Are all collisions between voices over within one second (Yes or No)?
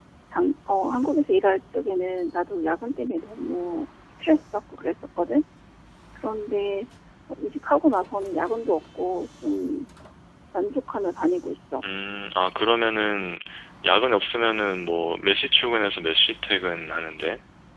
Yes